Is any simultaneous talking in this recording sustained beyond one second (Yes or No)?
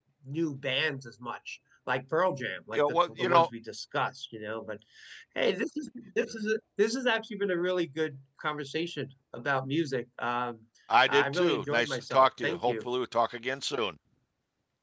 Yes